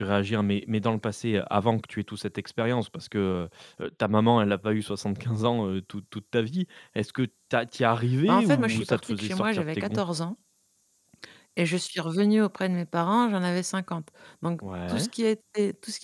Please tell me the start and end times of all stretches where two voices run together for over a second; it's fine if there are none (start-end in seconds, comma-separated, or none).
8.3-10.0